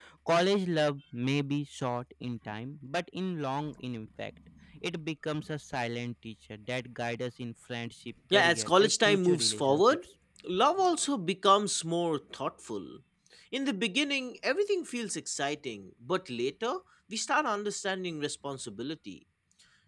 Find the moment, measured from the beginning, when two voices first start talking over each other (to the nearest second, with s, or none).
8 s